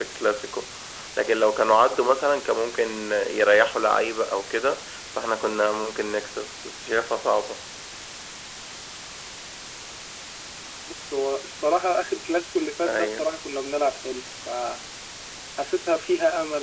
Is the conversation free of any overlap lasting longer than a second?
Yes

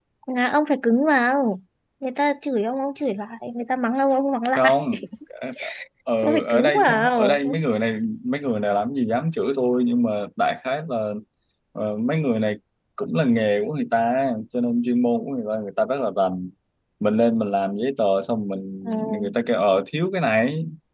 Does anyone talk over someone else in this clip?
Yes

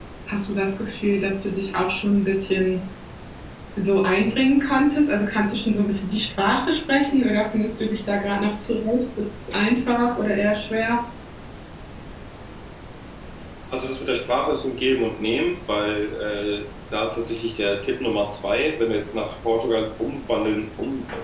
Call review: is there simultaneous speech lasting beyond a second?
No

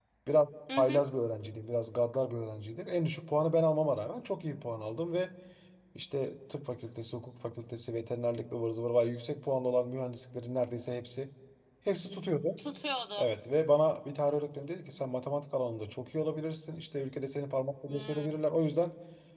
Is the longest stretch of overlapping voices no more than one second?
Yes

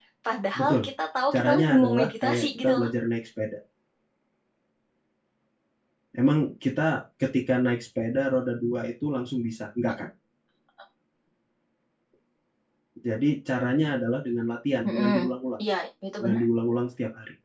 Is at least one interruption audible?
Yes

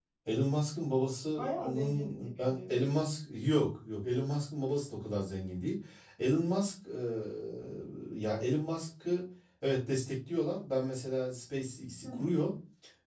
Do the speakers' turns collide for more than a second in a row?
Yes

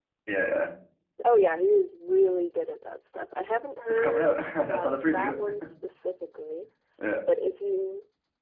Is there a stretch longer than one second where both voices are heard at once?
Yes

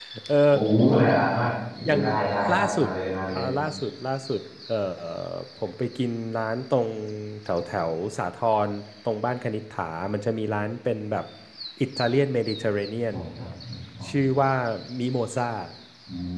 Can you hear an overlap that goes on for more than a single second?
No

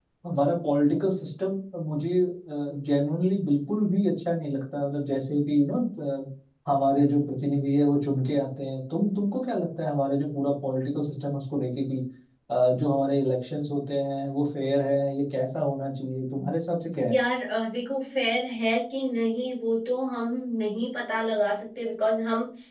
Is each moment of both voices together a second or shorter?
Yes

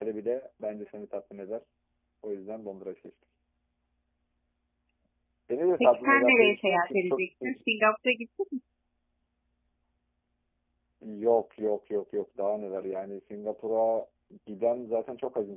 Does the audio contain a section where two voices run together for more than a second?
Yes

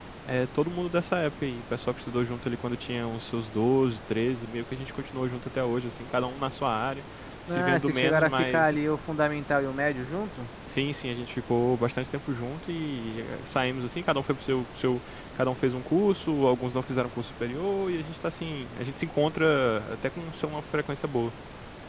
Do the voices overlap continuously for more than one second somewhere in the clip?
Yes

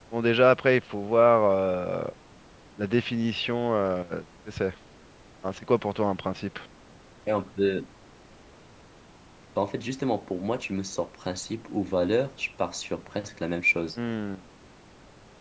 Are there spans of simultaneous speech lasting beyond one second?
No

